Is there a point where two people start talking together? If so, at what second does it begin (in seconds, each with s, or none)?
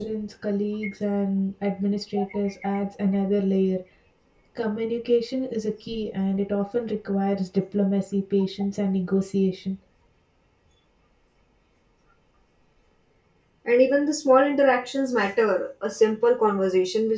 none